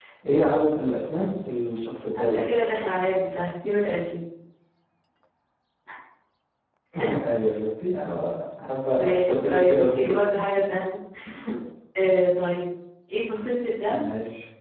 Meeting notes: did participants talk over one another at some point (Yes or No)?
Yes